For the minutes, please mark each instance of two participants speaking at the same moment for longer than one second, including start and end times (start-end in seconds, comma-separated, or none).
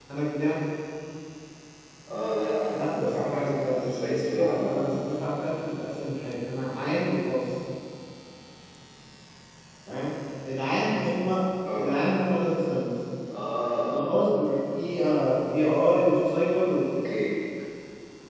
2.7-5.4